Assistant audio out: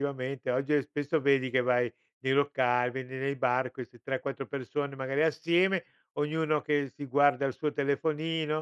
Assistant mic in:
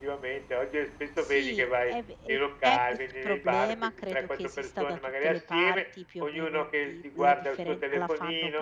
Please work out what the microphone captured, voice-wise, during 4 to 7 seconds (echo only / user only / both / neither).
both